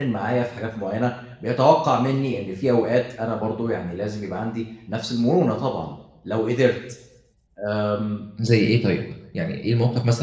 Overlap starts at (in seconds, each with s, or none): none